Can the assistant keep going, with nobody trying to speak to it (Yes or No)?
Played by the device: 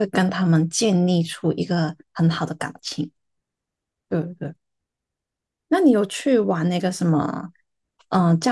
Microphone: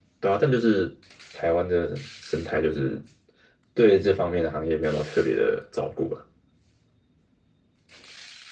No